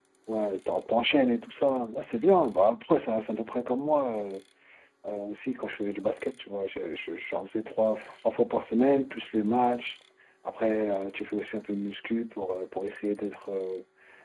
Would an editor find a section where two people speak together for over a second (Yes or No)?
No